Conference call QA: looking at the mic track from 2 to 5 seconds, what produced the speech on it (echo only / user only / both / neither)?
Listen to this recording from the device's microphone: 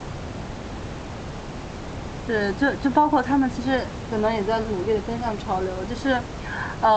user only